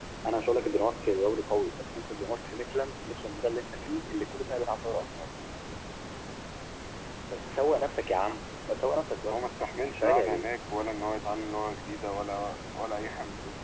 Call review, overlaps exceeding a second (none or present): none